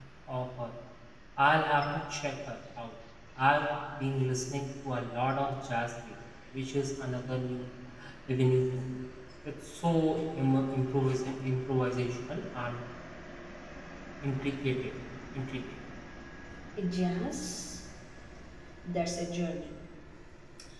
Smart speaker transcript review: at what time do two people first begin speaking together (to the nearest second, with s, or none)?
none